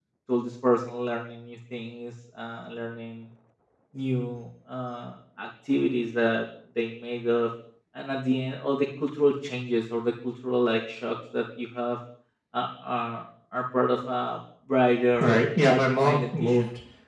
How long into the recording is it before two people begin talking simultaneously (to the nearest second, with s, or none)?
15 s